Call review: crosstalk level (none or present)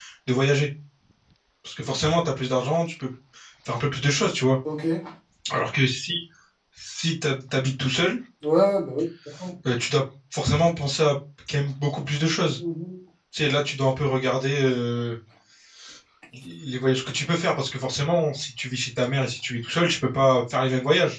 none